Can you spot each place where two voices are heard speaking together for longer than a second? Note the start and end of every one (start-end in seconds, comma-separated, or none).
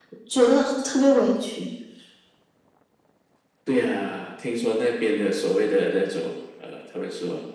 none